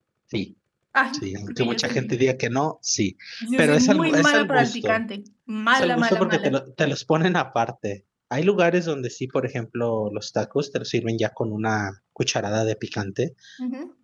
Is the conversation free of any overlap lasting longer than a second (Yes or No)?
No